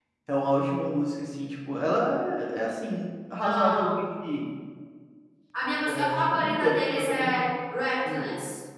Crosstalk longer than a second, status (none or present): present